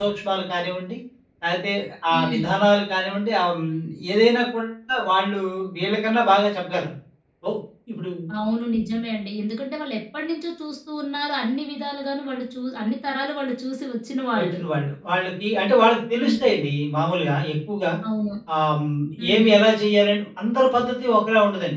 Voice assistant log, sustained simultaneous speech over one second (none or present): none